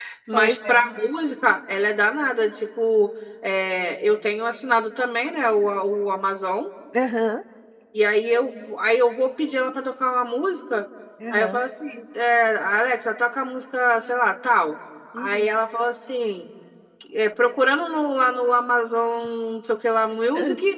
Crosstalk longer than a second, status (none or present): none